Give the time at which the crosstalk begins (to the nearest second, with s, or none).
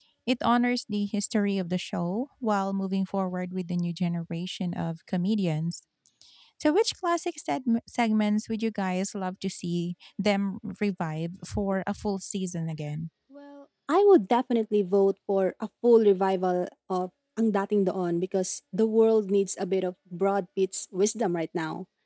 none